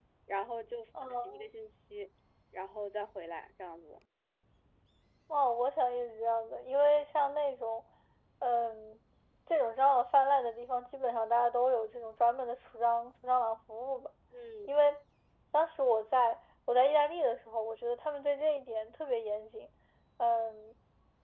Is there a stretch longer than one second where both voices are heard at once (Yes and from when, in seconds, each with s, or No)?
No